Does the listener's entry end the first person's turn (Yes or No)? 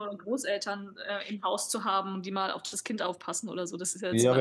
Yes